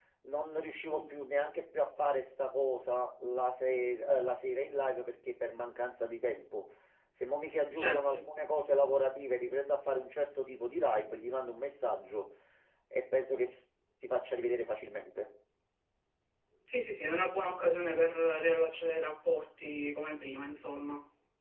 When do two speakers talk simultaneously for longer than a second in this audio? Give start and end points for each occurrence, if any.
none

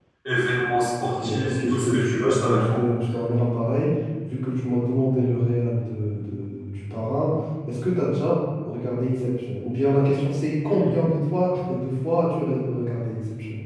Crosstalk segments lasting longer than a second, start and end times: 1.0-2.9

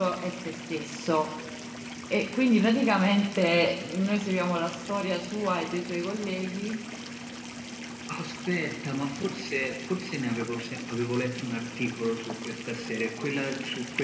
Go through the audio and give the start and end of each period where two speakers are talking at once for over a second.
none

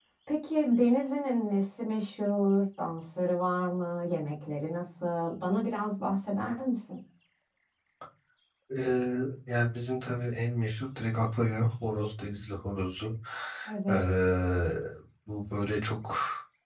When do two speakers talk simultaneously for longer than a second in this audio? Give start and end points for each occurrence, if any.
none

